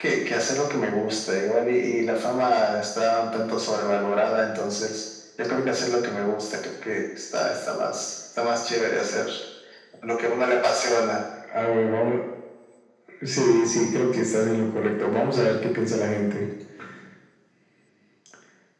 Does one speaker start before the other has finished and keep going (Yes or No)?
No